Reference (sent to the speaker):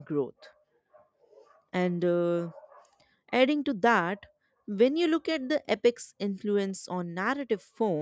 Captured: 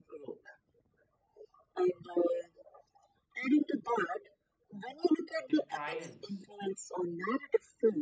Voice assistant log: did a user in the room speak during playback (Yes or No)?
Yes